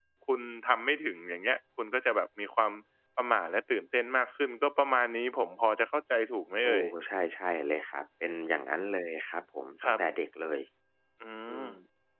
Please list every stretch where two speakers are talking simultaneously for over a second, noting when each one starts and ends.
none

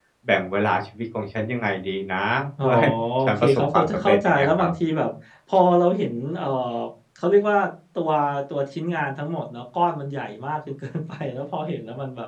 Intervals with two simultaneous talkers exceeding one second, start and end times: 3.3-4.7

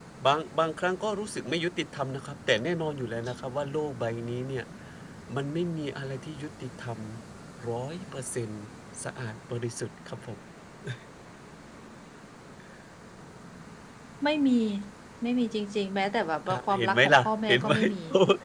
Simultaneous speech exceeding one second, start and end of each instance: 16.5-17.9

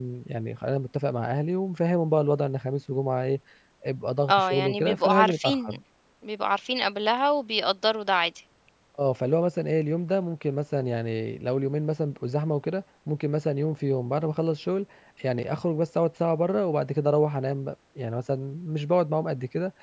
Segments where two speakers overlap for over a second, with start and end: 4.3-5.8

